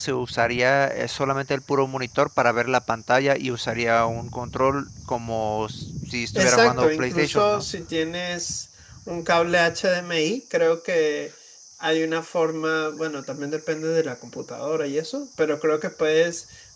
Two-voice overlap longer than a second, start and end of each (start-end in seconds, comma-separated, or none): 6.4-7.6